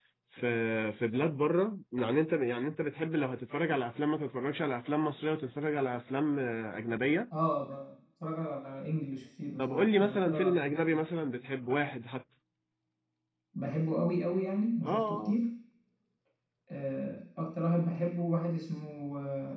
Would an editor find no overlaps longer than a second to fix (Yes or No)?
No